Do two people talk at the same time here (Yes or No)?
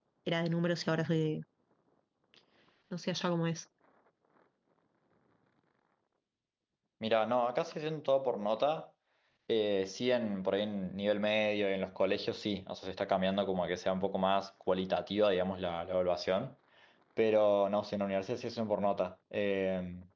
No